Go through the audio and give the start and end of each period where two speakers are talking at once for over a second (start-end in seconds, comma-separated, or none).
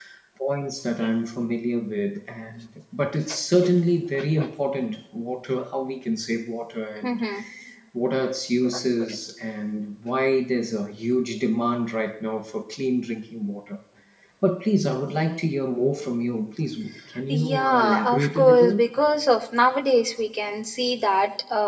17.3-18.8